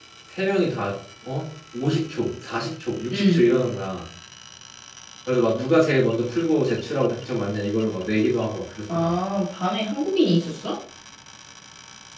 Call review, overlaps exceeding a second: none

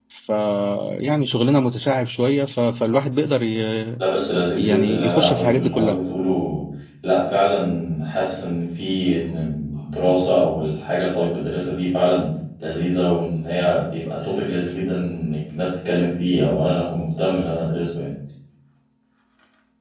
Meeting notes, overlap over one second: present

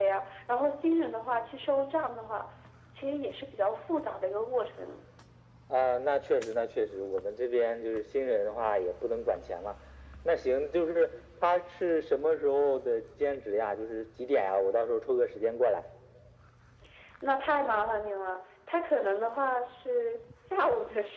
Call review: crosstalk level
none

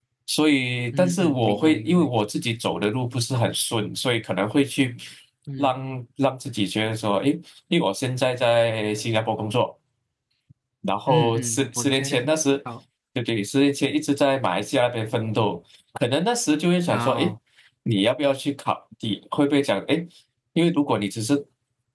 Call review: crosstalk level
present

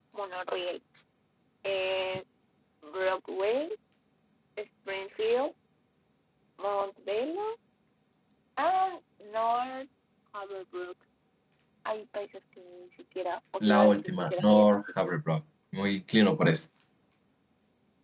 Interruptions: present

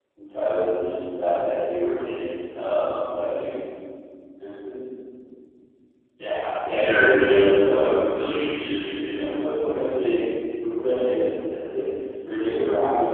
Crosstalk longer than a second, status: present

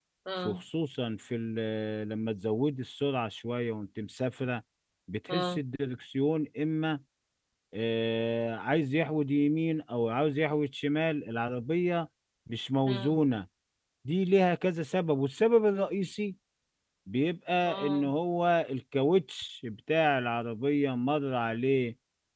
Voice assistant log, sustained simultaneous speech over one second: none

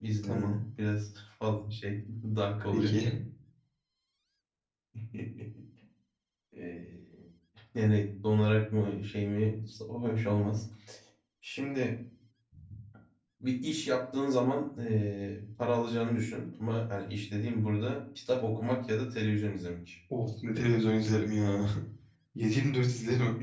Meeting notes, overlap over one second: none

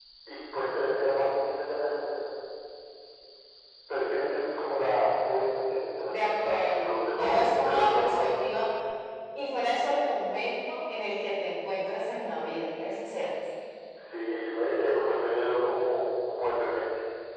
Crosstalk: present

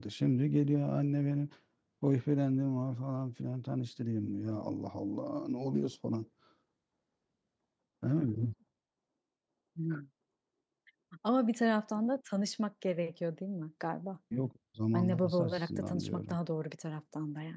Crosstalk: present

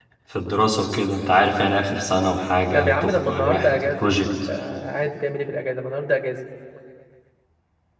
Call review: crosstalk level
present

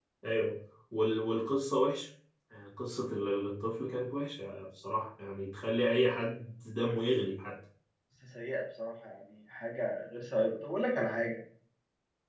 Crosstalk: none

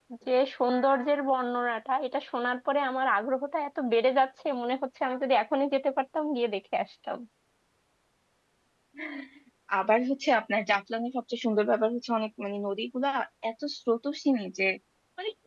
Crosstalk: none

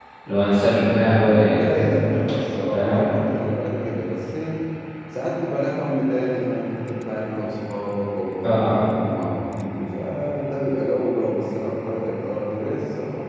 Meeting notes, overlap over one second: none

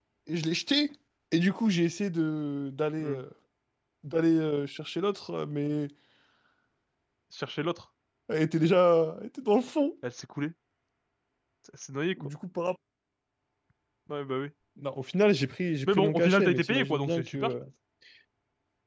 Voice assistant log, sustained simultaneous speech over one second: present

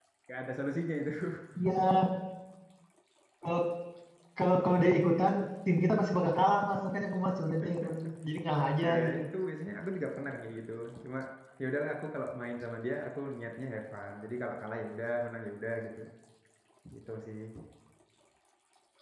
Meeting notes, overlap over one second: none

